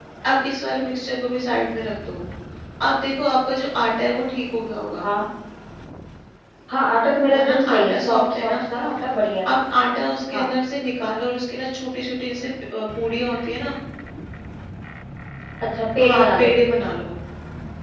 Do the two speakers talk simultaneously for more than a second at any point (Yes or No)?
Yes